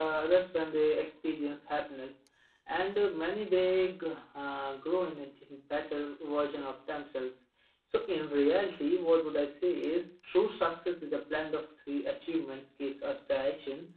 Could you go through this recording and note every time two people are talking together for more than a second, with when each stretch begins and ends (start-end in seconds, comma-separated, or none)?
none